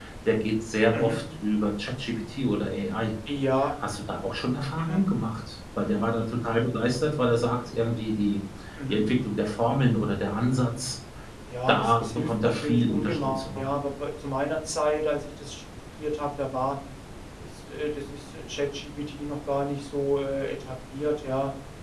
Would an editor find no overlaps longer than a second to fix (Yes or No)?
No